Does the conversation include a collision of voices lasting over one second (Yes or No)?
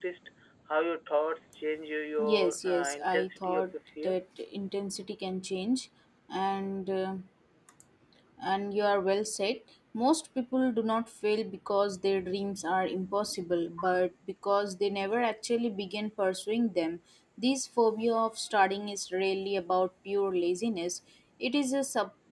Yes